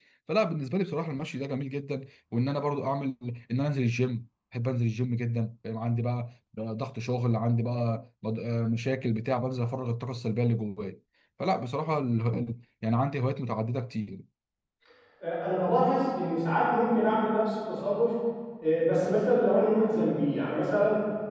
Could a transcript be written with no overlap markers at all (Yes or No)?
Yes